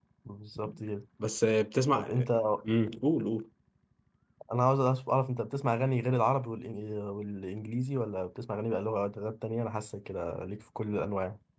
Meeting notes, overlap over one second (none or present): none